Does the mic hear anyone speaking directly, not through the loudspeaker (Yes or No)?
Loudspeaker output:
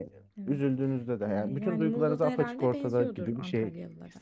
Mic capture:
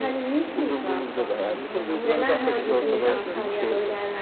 Yes